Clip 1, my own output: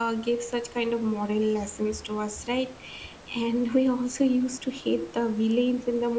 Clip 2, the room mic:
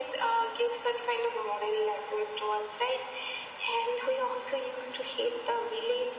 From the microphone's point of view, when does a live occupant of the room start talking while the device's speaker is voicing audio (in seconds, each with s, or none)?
none